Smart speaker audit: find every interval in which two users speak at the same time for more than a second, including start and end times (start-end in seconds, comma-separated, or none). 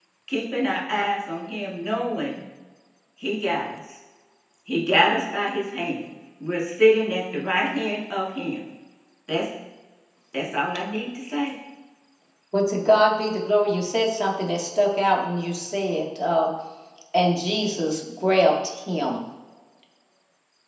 none